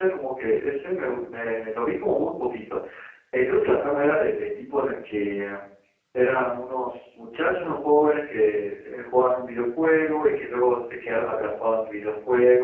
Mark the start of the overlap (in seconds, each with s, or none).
none